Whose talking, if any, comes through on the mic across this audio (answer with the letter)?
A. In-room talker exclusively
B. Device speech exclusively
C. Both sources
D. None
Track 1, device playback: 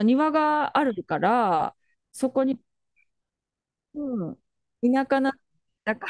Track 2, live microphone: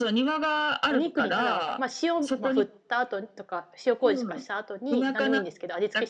C